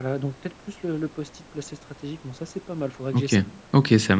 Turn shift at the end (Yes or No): Yes